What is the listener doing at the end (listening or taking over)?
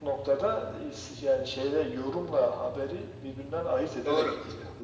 taking over